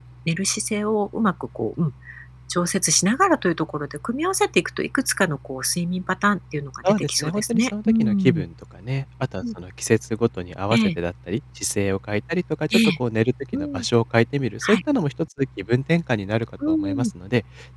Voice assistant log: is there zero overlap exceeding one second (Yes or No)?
No